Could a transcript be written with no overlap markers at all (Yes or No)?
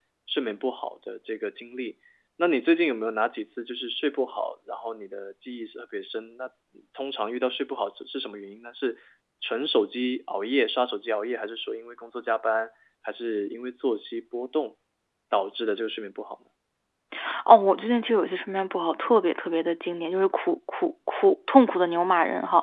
Yes